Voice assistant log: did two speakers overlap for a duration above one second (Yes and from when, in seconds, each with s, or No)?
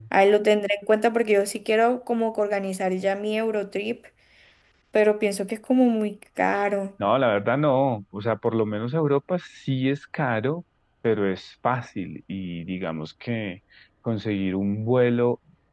No